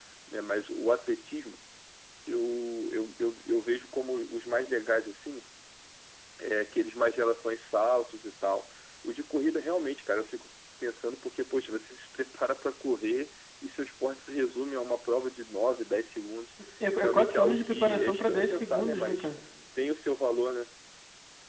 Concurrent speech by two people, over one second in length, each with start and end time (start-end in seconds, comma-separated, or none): 17.0-19.3